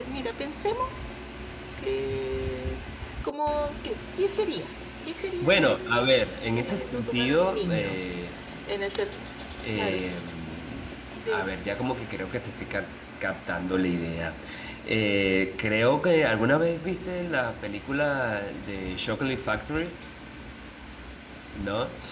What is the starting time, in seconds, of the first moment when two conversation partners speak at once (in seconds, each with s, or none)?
5.4 s